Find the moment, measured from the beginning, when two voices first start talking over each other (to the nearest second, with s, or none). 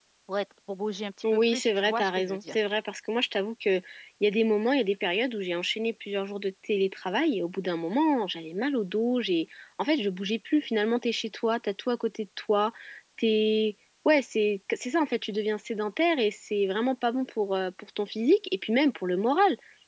1 s